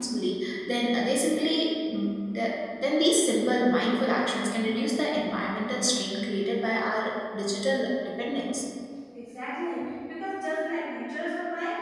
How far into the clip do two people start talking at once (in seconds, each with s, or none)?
none